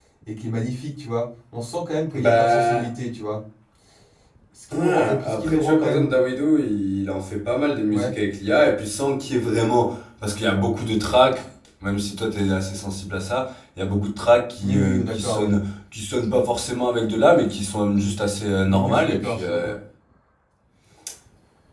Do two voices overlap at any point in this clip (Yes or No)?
Yes